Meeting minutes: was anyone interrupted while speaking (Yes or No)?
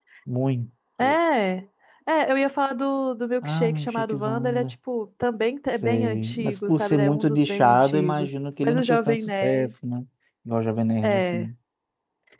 Yes